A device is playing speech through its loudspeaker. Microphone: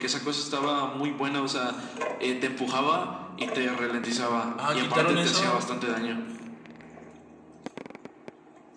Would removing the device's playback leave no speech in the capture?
No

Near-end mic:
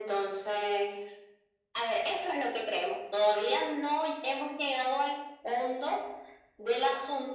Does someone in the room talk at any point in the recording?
No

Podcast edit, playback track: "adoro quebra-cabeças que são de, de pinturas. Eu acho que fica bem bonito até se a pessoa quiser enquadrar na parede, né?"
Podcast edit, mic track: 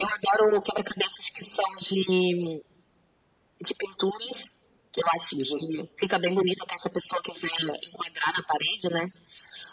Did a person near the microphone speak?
Yes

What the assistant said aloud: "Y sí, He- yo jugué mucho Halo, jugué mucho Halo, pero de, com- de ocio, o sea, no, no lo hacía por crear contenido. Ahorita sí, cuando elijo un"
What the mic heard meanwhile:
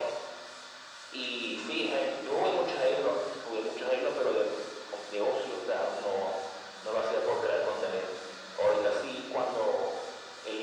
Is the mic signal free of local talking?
Yes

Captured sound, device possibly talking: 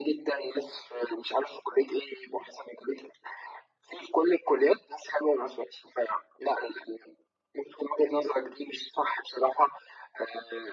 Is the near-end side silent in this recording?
Yes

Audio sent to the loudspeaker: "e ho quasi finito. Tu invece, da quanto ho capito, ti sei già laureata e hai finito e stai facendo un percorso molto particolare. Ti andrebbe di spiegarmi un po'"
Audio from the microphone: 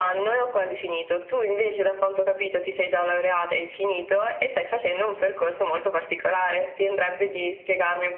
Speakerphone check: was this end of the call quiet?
Yes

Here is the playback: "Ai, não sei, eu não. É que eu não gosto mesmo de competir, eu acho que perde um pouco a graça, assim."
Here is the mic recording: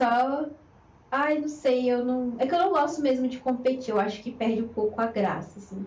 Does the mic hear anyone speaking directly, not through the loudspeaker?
No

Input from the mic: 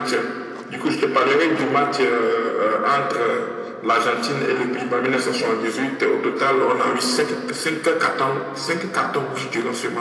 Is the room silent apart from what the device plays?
Yes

